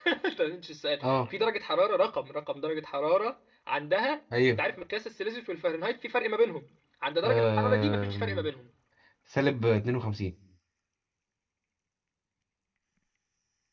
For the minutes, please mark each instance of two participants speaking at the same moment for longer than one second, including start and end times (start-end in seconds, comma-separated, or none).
7.2-8.5